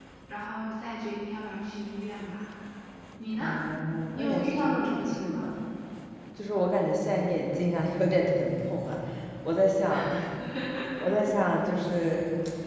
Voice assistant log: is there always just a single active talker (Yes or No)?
No